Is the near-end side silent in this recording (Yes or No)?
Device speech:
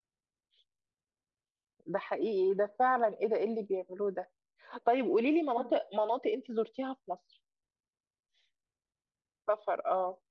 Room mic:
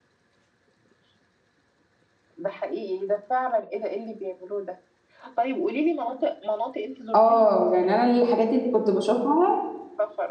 No